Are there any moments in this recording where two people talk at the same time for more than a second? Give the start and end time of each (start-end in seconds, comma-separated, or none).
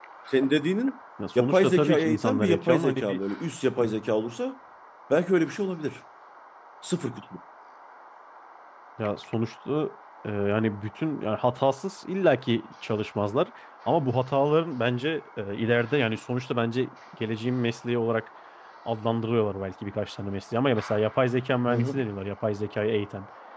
1.4-3.2